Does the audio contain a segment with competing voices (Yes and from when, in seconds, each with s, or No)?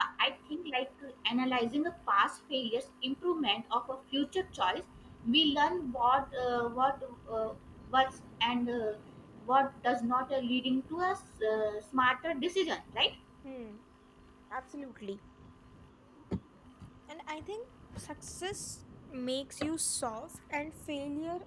No